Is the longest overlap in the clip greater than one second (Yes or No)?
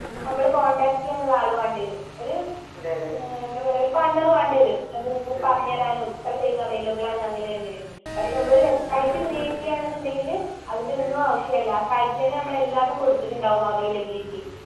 No